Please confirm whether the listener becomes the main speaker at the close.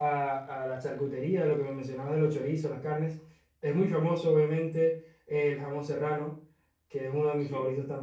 No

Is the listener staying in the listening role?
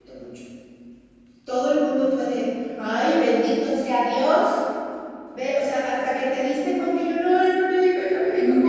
No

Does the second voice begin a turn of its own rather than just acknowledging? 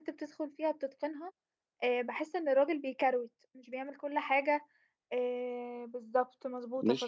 No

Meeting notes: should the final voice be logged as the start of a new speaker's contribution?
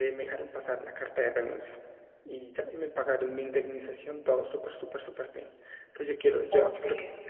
No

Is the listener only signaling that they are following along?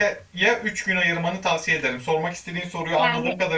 No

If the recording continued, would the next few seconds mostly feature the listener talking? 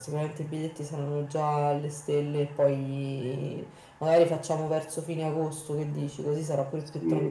Yes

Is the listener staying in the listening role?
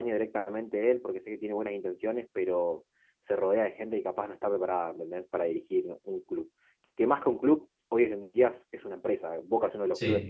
Yes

